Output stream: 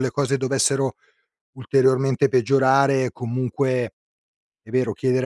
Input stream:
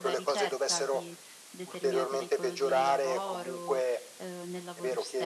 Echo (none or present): present